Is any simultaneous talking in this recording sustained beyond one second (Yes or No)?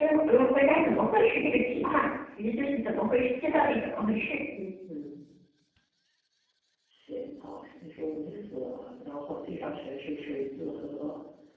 No